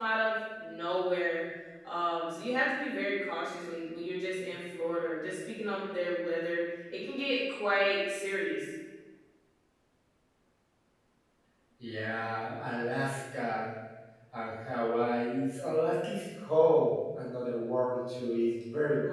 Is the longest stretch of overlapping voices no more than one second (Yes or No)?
Yes